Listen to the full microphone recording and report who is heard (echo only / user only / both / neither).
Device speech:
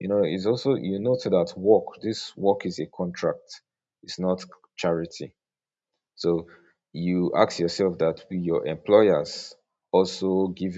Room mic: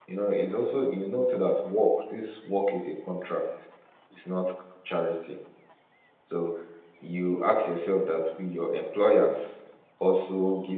echo only